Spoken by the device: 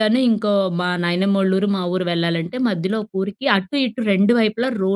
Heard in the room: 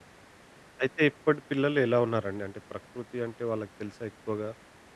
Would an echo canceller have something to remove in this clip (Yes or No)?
No